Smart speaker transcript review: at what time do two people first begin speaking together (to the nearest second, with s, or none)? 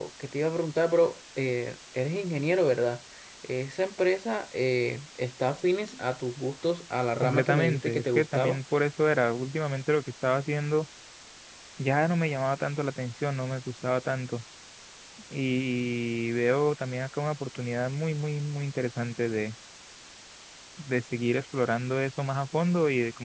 7 s